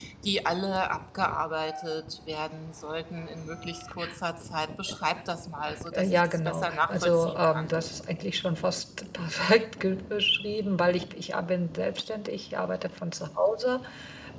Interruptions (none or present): present